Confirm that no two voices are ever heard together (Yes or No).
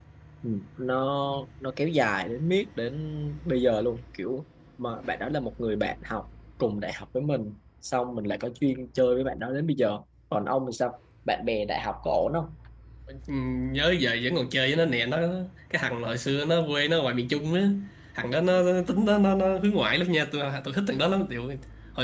Yes